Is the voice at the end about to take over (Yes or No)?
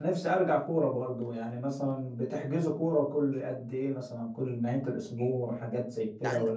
Yes